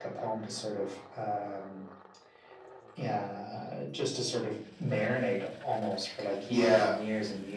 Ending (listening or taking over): listening